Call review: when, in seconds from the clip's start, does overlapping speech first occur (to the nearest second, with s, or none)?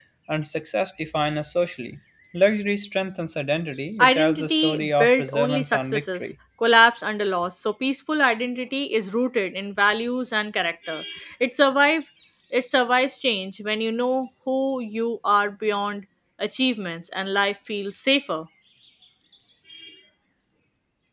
4 s